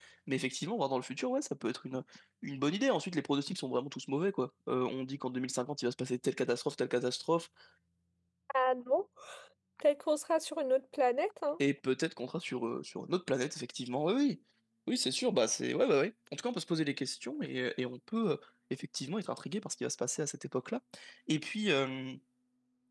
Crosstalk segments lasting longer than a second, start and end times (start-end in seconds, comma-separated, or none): none